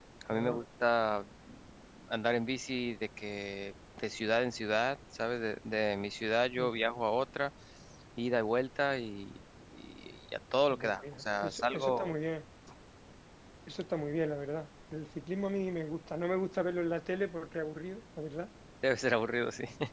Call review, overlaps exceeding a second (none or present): present